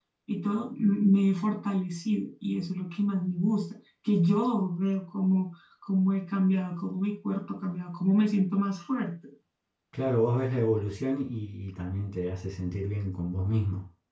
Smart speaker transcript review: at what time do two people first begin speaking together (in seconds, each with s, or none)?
none